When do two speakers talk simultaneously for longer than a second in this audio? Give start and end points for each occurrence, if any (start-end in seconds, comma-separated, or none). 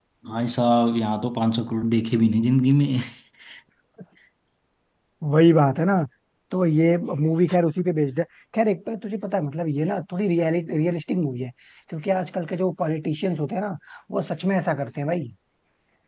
none